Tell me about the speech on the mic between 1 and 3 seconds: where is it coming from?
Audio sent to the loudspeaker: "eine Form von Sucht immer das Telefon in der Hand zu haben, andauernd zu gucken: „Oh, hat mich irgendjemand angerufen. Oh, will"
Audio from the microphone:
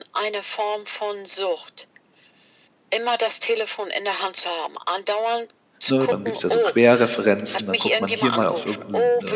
echo only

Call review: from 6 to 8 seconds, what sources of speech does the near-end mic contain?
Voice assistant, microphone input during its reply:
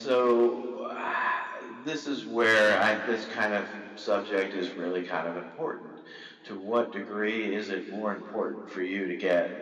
echo only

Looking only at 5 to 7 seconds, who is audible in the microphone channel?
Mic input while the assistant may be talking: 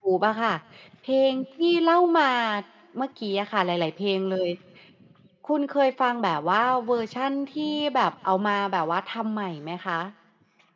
user only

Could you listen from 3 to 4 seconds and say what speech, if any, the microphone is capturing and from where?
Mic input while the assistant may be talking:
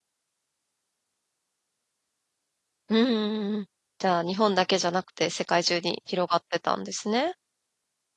user only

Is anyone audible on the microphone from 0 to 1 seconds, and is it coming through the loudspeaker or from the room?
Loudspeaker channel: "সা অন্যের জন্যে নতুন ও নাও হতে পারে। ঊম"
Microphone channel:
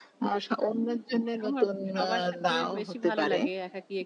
echo only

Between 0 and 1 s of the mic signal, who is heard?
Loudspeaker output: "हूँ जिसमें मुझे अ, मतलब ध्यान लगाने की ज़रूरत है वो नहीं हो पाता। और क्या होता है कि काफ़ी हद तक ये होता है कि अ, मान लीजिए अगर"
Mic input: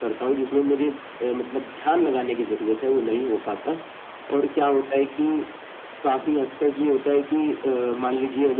echo only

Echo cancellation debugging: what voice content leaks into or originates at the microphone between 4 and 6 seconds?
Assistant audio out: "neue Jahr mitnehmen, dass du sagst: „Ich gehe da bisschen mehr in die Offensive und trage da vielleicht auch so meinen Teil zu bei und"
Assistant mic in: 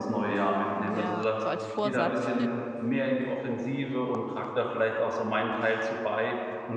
echo only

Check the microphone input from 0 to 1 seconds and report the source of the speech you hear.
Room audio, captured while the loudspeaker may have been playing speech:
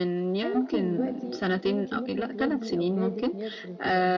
both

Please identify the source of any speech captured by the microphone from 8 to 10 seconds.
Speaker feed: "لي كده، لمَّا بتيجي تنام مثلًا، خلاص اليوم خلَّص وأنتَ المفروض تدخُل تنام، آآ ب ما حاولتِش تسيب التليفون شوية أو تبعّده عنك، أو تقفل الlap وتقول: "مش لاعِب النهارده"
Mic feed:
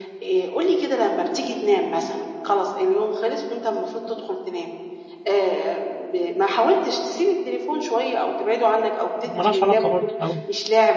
both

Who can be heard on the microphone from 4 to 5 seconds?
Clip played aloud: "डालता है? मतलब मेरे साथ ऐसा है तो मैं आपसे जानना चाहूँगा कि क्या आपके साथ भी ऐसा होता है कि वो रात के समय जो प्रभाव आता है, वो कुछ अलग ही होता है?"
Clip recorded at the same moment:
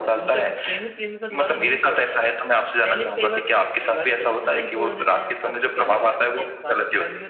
both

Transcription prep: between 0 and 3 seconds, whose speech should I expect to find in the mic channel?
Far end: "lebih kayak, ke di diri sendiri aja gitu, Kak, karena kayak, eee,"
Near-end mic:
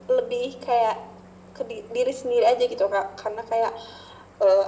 echo only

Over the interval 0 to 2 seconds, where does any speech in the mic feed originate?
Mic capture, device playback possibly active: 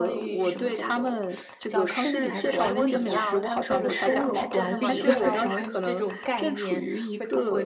both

